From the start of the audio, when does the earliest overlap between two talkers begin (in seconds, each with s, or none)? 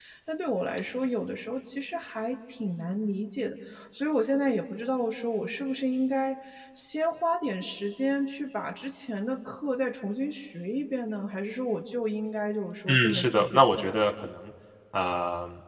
12.9 s